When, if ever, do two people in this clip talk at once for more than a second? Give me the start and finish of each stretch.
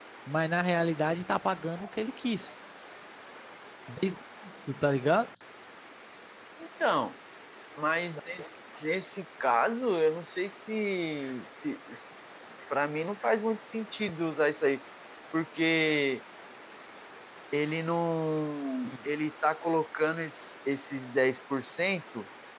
none

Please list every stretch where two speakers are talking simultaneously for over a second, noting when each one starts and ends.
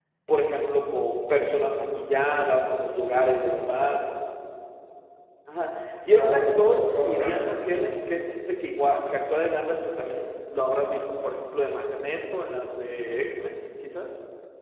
6.1-7.5

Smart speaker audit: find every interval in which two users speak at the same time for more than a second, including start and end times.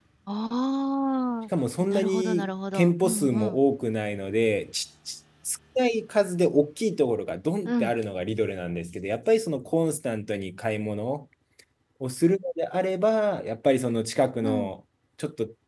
1.9-3.6

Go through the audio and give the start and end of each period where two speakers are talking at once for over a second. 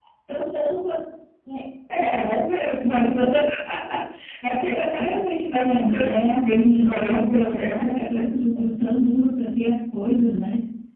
5.6-7.7

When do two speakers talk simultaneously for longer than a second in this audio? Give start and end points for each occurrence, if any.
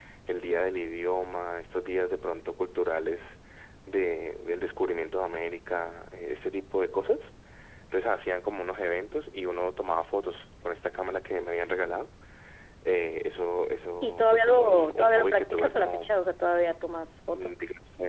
14.0-16.1

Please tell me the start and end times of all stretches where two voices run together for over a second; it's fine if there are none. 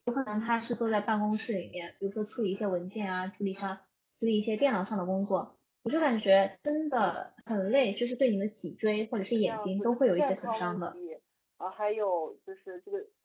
9.3-10.8

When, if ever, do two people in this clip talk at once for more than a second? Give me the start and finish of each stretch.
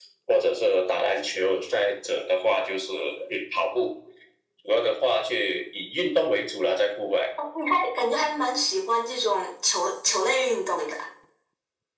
none

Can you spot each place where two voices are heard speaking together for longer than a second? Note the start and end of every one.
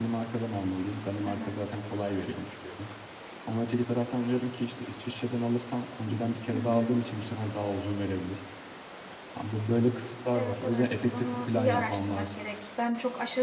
10.3-12.3

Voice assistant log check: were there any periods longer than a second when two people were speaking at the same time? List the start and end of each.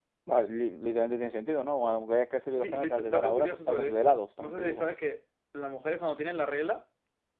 2.5-4.8

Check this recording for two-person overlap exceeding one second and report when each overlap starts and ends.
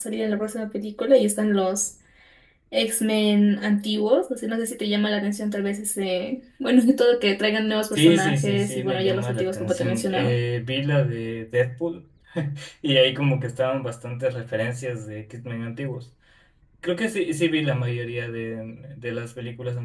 7.9-10.3

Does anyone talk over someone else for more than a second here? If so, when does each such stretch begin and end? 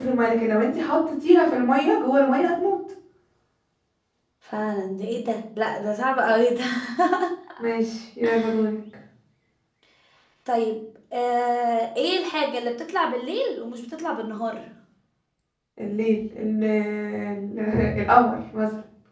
none

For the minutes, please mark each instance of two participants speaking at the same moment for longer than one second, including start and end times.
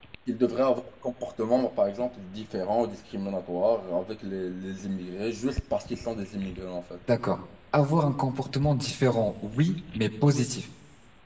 none

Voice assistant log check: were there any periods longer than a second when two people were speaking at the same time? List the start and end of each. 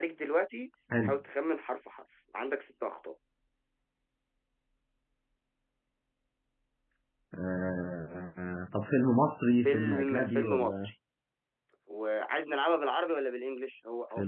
9.6-10.9

